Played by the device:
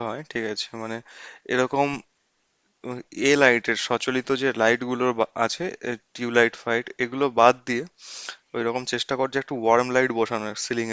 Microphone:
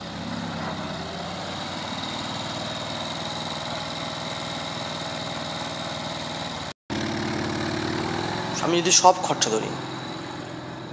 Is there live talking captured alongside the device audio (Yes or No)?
Yes